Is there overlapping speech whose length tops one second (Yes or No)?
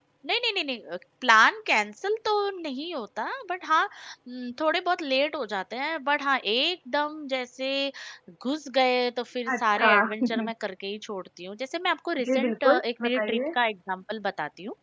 Yes